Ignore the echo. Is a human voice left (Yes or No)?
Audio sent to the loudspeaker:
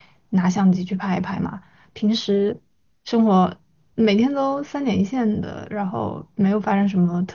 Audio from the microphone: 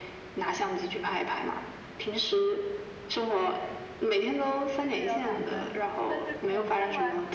Yes